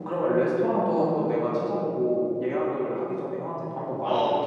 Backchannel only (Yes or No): No